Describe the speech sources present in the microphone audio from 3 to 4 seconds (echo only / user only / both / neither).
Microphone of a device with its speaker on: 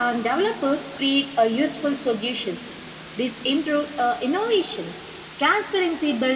echo only